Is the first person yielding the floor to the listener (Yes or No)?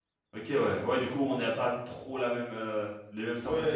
Yes